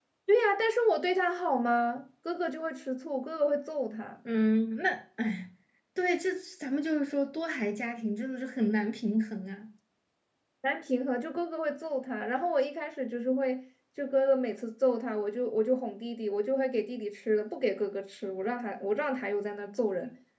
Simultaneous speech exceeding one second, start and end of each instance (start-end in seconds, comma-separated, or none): none